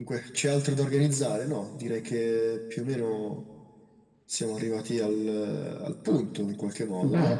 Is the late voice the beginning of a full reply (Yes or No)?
Yes